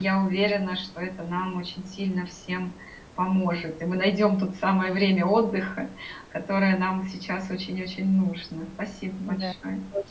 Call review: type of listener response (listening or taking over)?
taking over